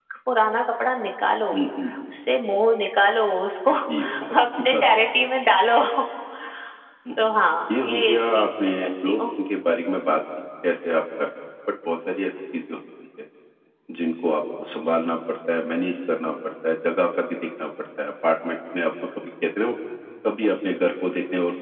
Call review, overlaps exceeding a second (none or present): present